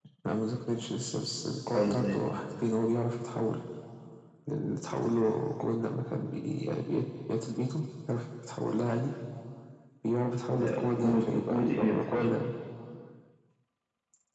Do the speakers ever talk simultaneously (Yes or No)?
Yes